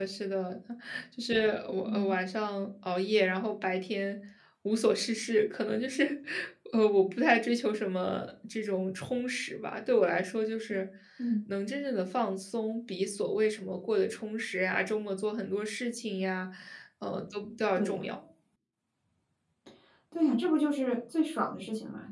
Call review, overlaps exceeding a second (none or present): none